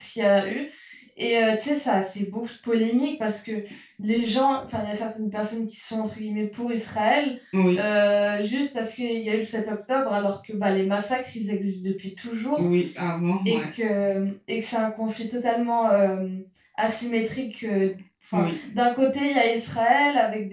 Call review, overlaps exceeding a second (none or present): none